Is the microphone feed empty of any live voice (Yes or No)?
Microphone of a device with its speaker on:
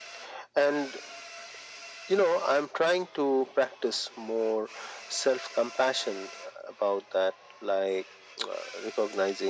Yes